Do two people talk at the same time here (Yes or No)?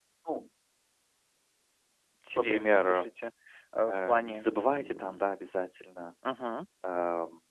Yes